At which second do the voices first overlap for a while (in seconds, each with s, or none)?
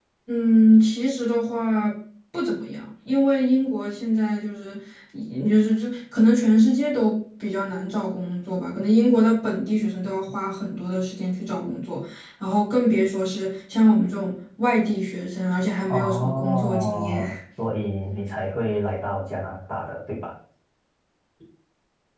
15.9 s